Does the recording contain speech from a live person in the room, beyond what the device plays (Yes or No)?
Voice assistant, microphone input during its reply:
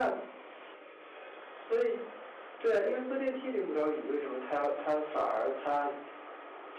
Yes